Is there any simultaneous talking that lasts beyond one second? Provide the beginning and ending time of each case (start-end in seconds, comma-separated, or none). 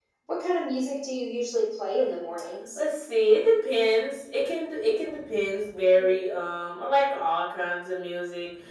none